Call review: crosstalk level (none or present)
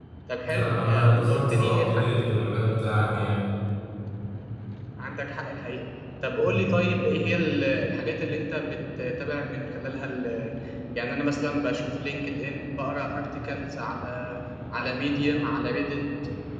present